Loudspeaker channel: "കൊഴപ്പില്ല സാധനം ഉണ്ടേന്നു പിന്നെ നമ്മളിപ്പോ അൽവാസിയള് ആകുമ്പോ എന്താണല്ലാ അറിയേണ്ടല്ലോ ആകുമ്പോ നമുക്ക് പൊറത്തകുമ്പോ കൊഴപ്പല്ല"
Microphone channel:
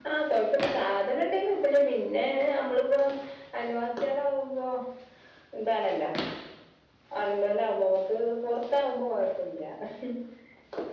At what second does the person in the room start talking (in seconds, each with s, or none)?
none